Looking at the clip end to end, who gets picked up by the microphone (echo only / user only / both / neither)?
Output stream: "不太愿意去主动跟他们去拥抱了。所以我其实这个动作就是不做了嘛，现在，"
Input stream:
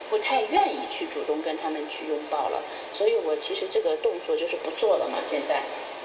echo only